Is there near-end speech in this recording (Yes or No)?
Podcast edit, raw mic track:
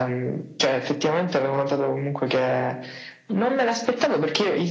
No